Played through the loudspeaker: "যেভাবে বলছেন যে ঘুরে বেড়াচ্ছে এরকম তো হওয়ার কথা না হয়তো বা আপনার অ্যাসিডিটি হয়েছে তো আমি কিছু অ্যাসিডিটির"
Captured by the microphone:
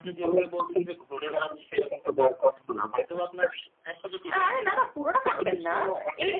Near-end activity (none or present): present